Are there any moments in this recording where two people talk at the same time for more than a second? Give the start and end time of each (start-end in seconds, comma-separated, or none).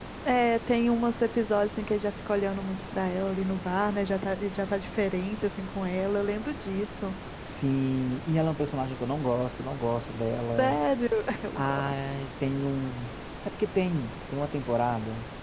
none